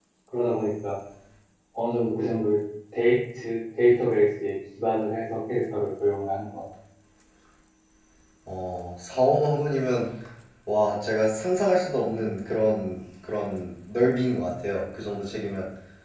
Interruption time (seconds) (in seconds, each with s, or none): none